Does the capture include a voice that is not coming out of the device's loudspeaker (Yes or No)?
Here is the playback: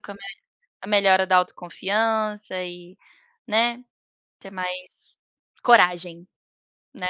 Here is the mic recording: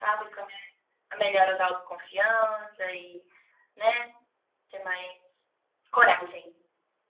No